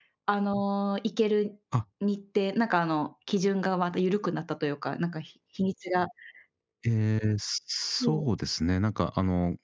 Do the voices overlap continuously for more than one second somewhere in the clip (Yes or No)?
No